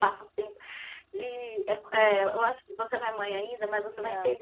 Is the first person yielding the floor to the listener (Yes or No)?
No